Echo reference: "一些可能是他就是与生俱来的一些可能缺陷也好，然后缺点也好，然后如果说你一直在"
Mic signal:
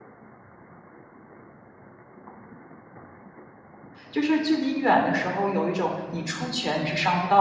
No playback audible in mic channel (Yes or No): Yes